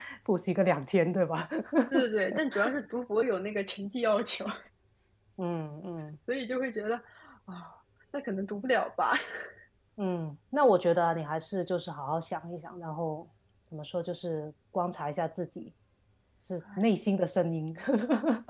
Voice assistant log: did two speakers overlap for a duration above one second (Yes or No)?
No